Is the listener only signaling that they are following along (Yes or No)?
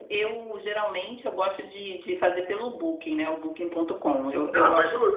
No